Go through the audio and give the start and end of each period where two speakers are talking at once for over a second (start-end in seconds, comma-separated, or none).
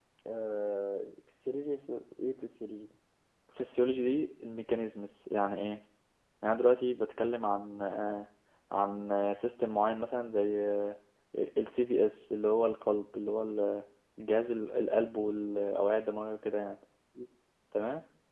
none